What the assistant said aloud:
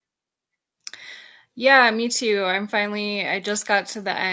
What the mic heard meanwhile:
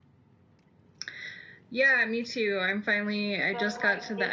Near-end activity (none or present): present